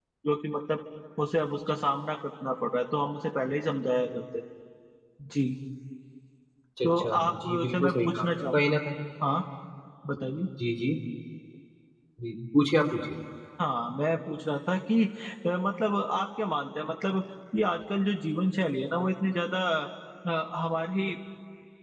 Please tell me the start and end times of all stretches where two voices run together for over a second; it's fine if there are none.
6.8-8.6

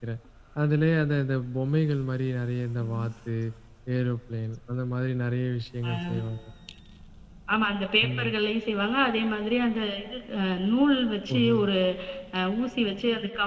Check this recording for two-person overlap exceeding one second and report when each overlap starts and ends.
none

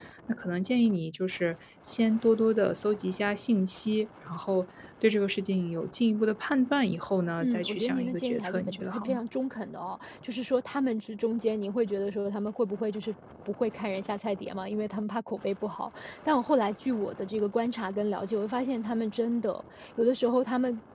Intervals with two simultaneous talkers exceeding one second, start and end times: 7.4-9.2

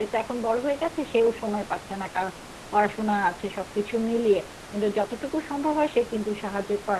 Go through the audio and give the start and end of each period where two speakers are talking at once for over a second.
none

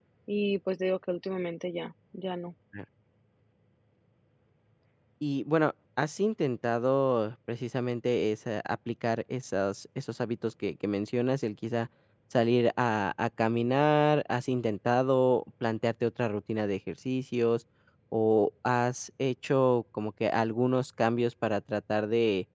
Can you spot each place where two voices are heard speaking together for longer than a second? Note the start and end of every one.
none

